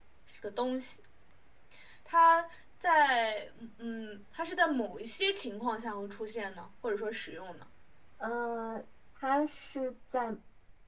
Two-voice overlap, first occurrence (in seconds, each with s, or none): none